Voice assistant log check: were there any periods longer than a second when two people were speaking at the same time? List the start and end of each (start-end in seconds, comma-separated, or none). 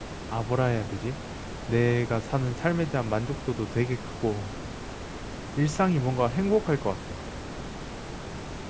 none